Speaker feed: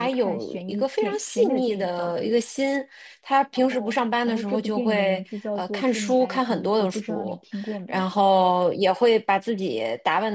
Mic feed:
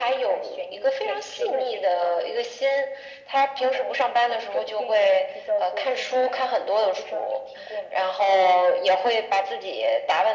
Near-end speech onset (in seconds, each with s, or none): none